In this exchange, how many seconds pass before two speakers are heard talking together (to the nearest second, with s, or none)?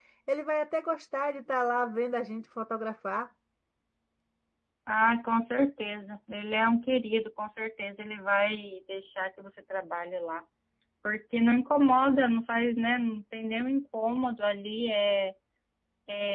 none